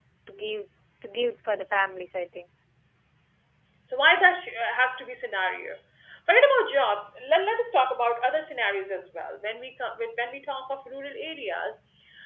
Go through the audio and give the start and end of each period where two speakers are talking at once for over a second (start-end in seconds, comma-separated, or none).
none